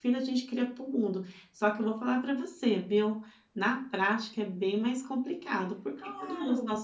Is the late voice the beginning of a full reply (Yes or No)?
No